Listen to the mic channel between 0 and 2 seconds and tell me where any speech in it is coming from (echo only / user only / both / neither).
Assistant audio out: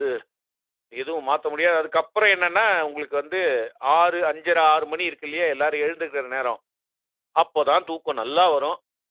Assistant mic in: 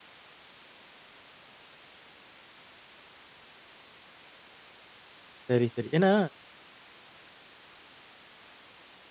neither